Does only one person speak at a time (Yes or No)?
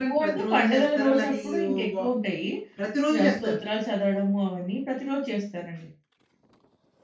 No